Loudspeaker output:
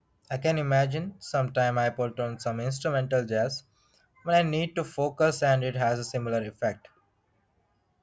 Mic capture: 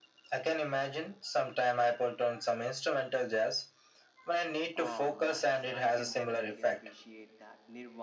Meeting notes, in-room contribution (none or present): present